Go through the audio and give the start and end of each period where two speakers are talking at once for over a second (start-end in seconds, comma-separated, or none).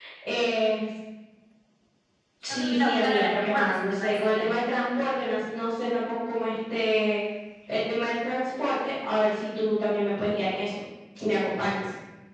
2.5-4.5